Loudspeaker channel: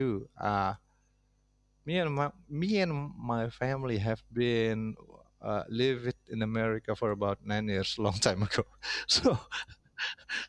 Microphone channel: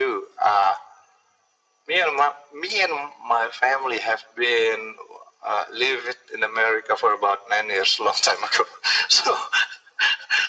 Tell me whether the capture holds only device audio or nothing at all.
Yes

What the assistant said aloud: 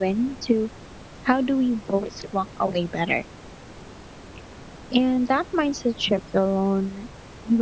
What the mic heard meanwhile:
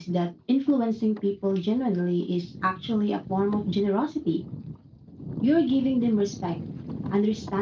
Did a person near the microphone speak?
Yes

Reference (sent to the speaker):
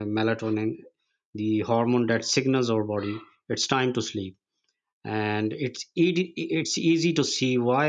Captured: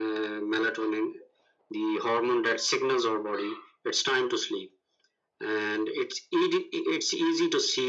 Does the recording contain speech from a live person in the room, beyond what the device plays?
No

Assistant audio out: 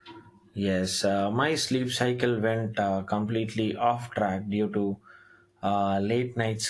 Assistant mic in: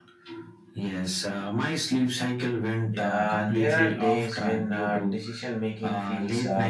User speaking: Yes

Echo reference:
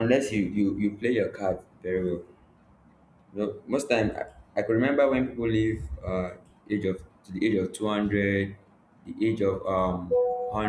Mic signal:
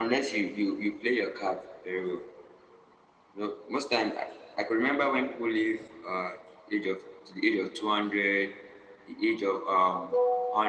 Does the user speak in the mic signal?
No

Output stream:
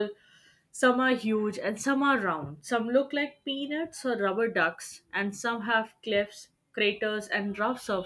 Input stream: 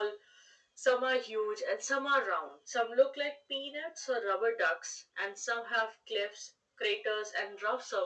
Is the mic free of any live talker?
Yes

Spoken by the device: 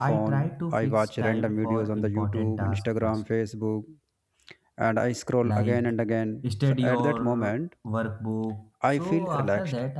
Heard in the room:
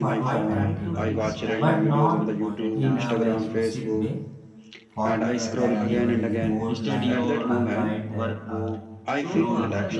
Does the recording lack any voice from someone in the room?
No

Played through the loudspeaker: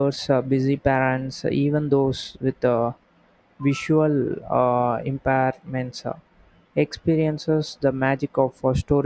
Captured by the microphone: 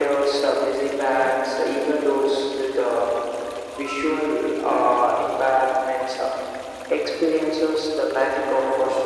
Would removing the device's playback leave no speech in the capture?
Yes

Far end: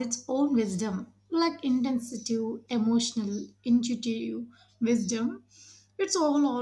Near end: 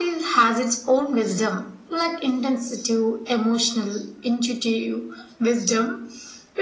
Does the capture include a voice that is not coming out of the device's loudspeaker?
No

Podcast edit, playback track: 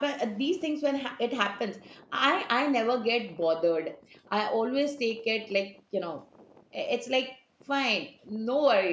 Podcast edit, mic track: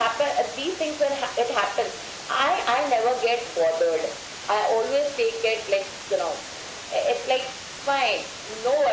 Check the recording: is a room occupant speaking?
No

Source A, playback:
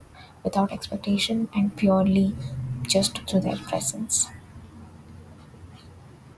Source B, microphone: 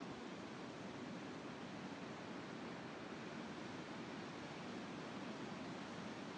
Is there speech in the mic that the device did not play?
No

